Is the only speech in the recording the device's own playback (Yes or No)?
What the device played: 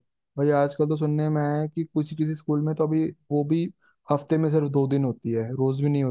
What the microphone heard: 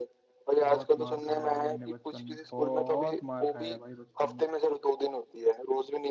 No